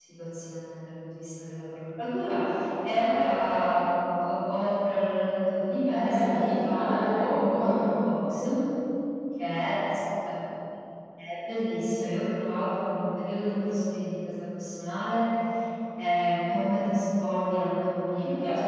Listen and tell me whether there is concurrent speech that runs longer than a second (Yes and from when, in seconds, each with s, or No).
Yes, from 5.8 s